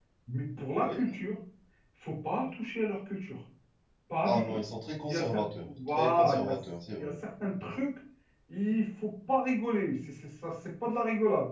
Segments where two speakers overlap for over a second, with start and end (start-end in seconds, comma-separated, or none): 5.0-6.5